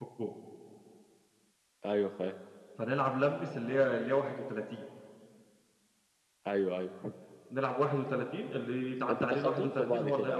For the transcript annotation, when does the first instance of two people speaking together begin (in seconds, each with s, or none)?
9.1 s